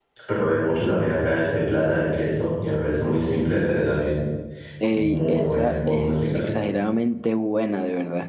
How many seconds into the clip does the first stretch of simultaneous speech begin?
4.9 s

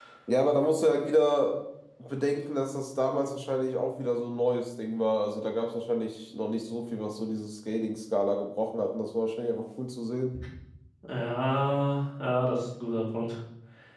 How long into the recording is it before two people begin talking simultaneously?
none

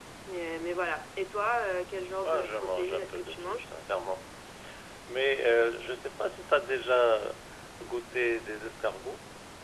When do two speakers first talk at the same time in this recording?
2.2 s

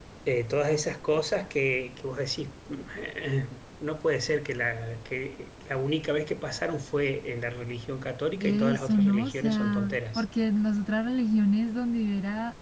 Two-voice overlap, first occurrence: 8.4 s

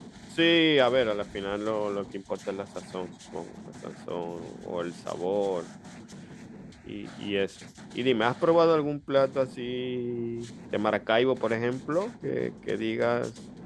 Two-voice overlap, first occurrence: none

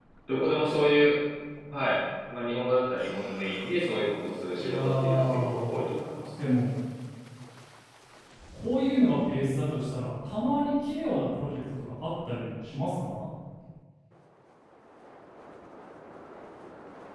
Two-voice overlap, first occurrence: 4.6 s

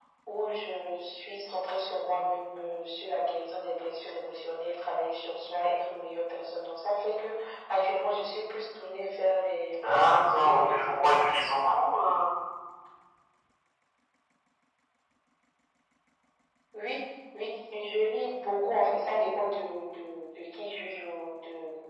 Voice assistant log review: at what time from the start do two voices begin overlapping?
9.6 s

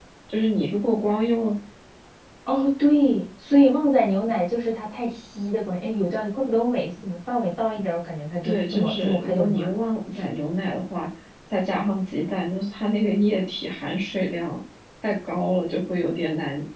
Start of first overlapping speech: 8.4 s

